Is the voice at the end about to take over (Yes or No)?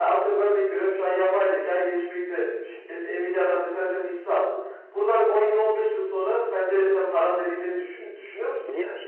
Yes